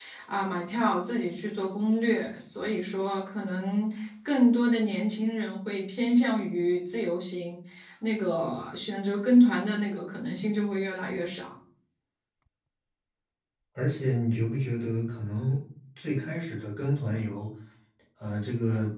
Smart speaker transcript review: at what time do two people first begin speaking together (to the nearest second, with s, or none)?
none